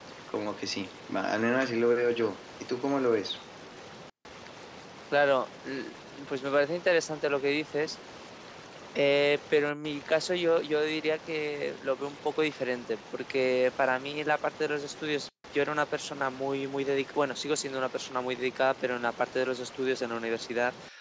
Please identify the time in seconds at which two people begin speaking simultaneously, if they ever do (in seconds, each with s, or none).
none